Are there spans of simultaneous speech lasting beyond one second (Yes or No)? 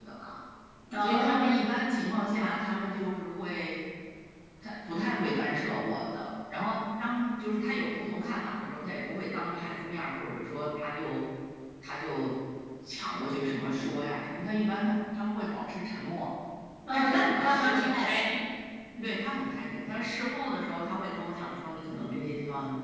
Yes